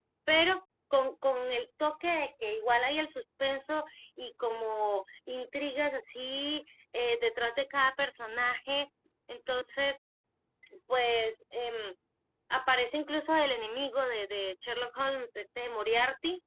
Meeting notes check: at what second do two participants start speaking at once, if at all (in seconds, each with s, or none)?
none